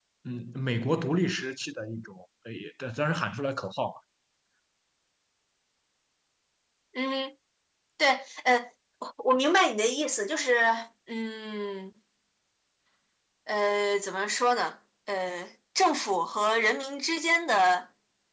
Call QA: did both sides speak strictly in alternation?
Yes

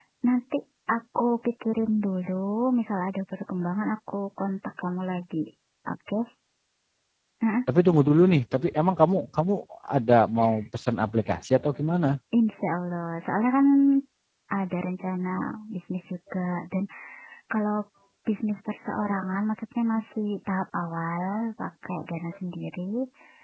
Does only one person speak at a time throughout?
Yes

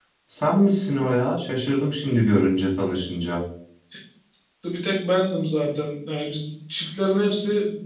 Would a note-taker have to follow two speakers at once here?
No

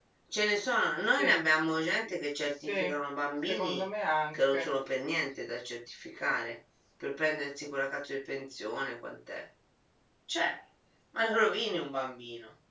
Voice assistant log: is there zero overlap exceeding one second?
Yes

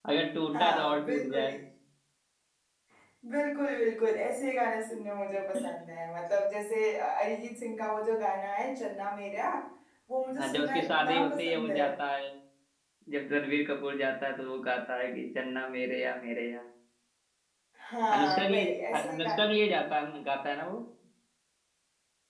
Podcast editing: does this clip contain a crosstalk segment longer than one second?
Yes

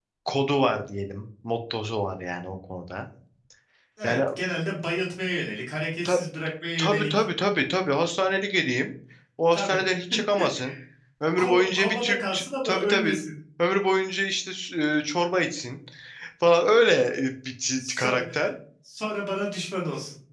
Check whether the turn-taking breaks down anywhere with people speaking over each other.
Yes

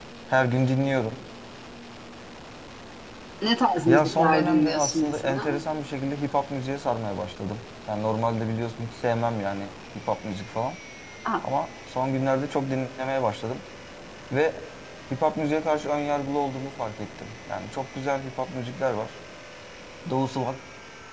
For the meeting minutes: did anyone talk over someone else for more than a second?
Yes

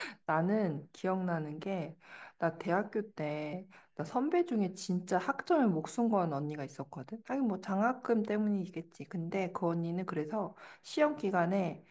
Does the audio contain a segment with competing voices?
No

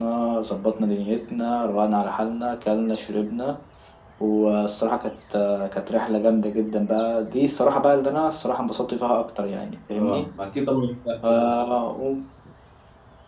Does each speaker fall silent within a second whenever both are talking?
Yes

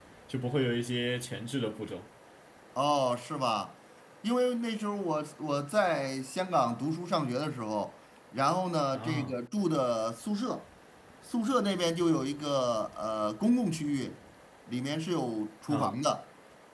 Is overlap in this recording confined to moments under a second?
Yes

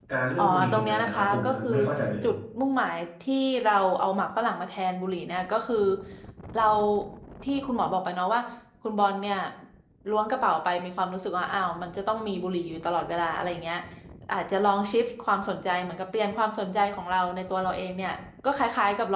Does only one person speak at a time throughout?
No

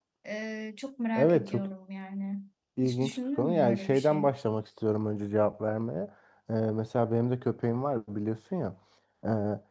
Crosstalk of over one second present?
Yes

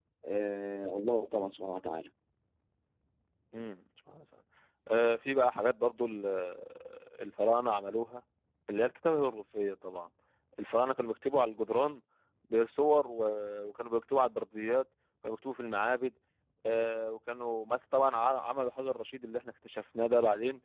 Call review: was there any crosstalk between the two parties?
No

